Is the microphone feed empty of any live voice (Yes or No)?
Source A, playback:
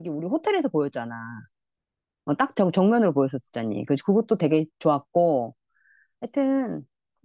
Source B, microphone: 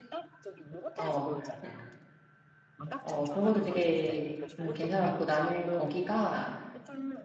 No